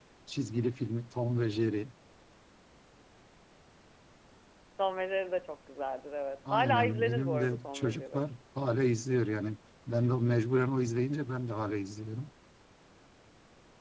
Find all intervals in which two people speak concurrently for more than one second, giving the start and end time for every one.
6.5-8.2

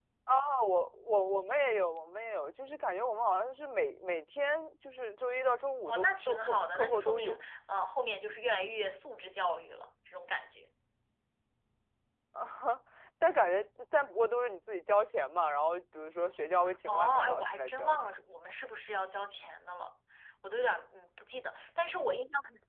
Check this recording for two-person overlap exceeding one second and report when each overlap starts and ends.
5.8-7.4, 16.9-18.1

